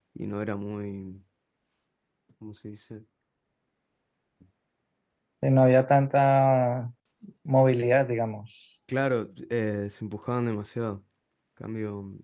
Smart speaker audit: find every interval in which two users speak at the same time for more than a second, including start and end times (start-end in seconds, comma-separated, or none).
none